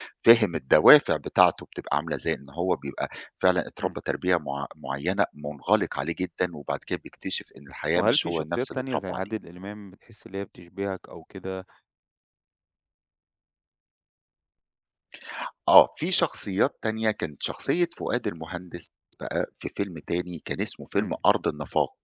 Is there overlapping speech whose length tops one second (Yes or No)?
Yes